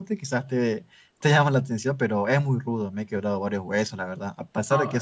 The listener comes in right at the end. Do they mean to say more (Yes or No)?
No